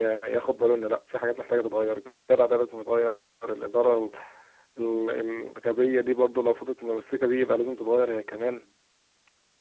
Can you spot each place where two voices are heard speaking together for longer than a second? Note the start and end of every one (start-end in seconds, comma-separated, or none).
none